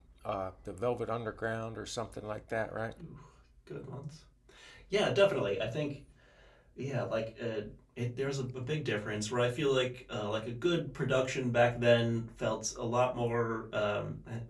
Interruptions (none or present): none